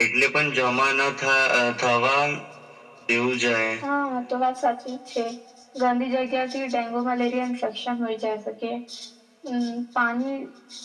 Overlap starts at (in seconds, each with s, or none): none